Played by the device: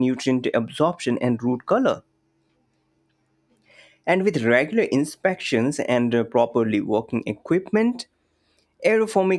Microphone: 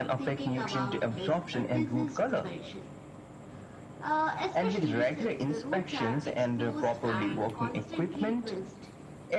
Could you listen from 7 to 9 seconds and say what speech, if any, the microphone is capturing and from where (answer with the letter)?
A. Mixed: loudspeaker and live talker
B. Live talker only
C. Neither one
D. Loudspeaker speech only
A